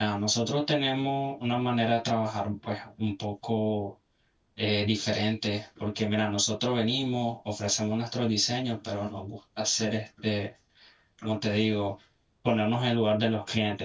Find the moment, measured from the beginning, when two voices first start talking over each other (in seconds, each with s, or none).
none